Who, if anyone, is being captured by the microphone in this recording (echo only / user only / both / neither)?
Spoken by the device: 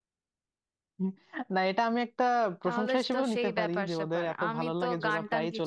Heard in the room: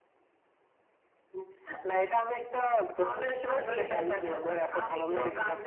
both